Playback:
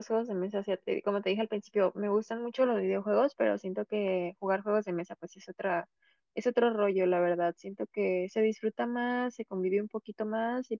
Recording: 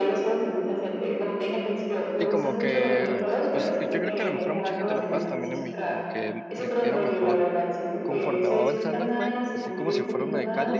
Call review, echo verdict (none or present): present